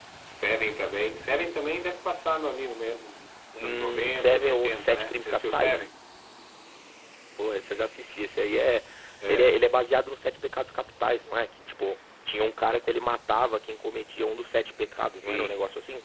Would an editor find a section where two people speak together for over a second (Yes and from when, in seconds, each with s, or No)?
Yes, from 3.6 s